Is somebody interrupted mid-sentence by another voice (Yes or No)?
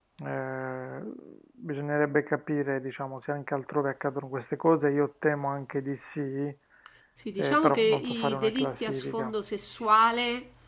Yes